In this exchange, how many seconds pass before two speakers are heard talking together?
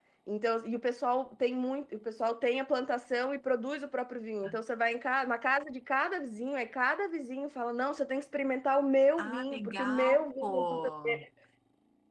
9 s

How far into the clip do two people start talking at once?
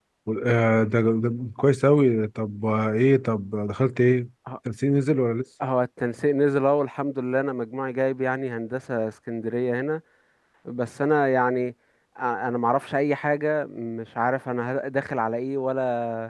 none

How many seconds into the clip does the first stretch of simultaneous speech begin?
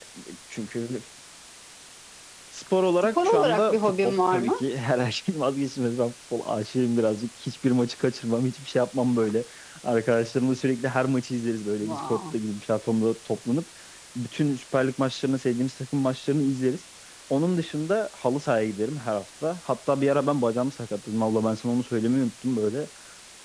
3 s

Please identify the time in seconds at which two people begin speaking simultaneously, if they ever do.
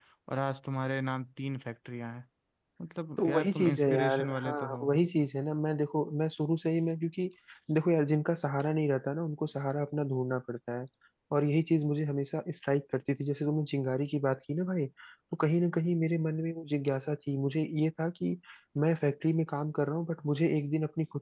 3 s

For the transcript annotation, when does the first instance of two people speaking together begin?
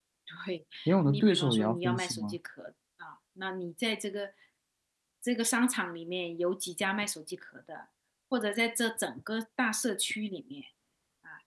1 s

